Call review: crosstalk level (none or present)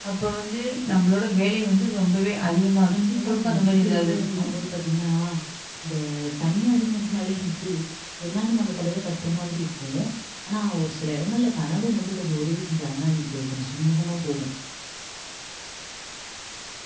present